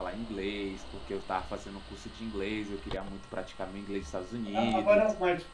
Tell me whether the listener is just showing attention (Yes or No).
No